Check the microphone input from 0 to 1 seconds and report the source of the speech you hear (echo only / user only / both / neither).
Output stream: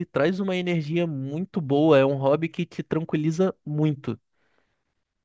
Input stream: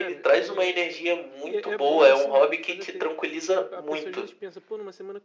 both